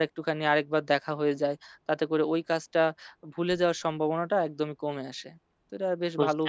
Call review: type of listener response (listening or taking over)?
taking over